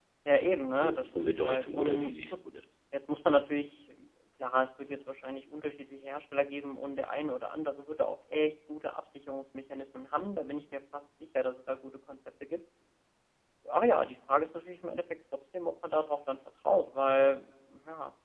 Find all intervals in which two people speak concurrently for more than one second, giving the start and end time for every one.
0.8-2.1

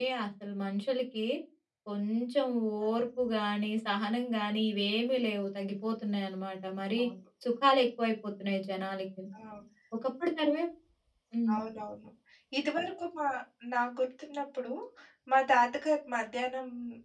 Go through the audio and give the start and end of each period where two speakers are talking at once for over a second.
none

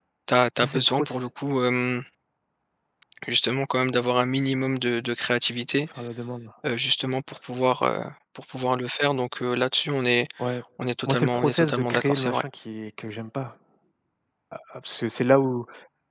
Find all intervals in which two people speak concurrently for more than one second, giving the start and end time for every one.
11.1-12.4

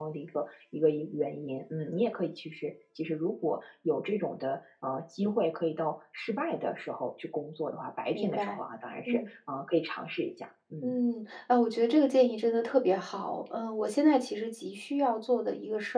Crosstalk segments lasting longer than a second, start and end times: none

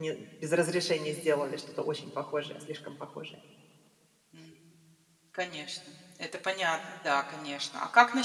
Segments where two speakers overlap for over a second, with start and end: none

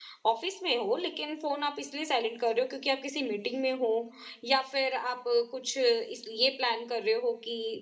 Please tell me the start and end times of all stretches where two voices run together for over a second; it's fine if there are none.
none

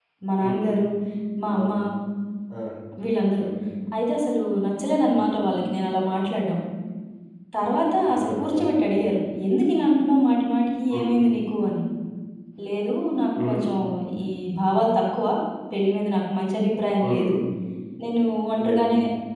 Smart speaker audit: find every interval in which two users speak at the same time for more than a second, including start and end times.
none

